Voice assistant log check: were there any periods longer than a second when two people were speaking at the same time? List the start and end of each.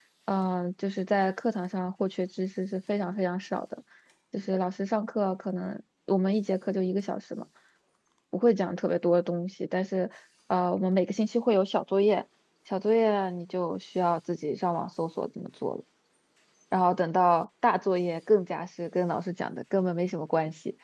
none

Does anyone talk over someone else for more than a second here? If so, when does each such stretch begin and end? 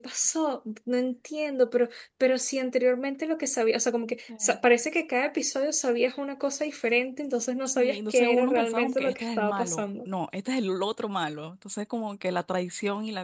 7.6-10.1

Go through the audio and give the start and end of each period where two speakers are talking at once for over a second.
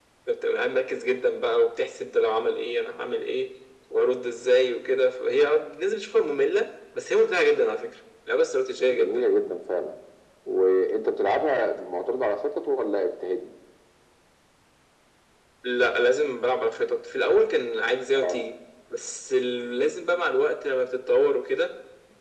none

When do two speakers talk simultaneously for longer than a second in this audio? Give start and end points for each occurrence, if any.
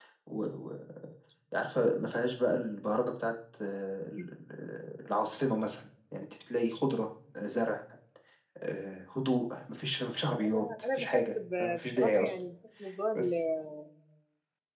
10.4-12.3

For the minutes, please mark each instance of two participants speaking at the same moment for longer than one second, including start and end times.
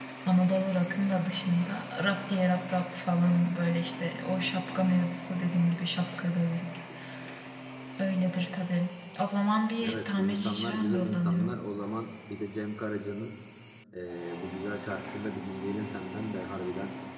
9.8-11.6

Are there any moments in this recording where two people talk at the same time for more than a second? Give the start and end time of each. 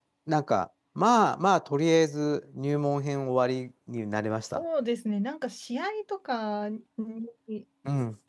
none

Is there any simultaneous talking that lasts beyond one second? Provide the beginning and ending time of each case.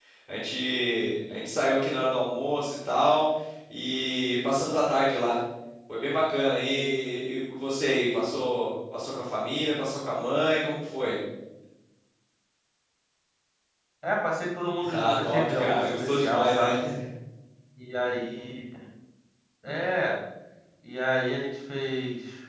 14.9-16.7

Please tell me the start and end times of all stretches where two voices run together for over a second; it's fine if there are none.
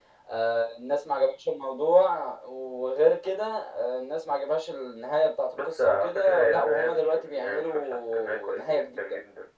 5.6-9.0

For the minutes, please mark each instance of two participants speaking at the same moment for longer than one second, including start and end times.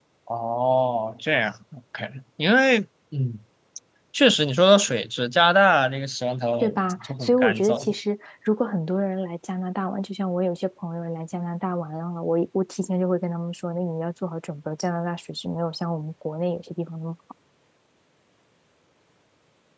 6.6-7.9

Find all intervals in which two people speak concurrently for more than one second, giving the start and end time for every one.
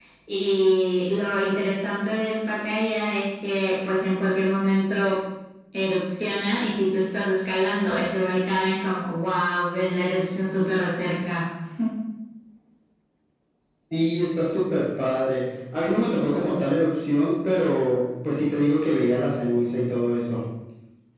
none

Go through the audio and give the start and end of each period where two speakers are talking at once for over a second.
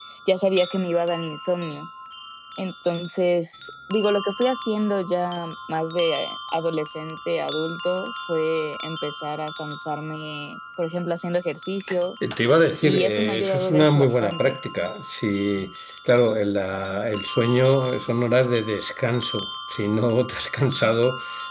12.8-14.6

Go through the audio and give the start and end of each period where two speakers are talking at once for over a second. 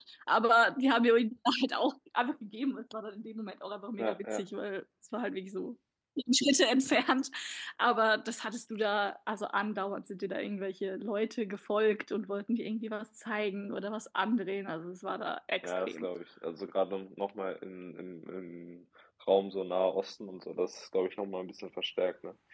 none

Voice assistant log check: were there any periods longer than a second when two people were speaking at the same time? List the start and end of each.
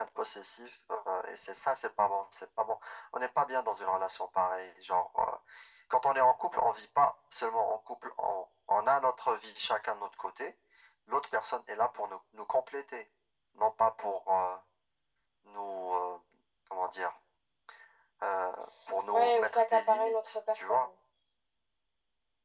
19.1-20.9

